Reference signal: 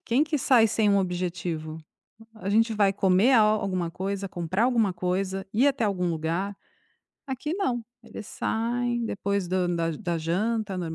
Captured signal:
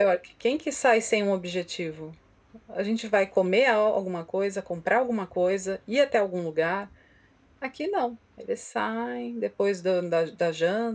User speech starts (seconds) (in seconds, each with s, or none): none